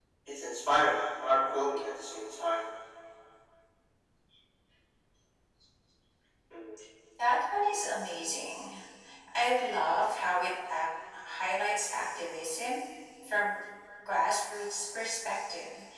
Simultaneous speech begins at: none

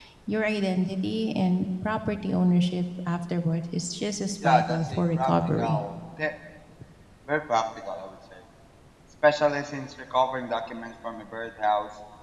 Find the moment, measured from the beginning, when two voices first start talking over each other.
4.4 s

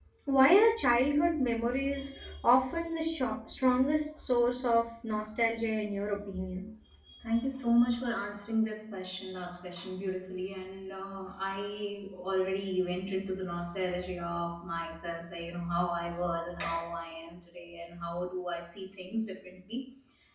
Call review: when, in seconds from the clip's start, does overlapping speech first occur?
none

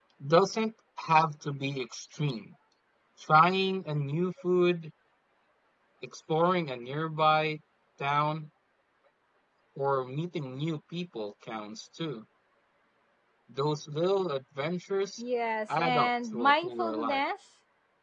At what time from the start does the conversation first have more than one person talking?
15.7 s

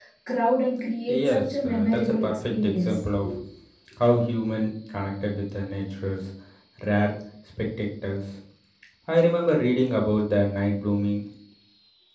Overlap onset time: 1.1 s

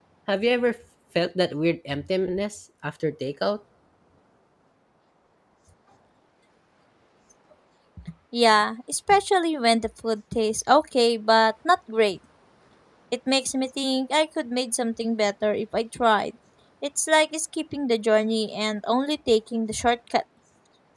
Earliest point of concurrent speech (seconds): none

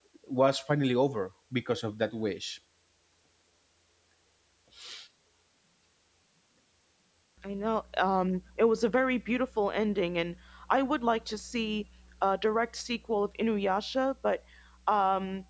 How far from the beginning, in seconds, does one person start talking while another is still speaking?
none

